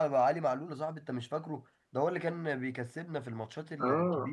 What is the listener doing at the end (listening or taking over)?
taking over